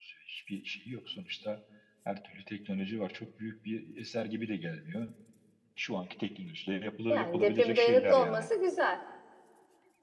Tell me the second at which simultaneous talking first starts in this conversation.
7.1 s

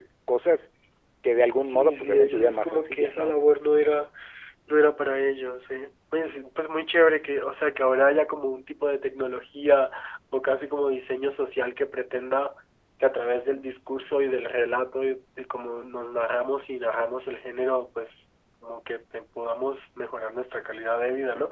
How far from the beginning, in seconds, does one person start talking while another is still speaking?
1.5 s

